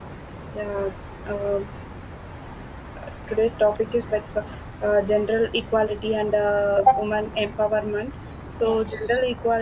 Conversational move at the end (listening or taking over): listening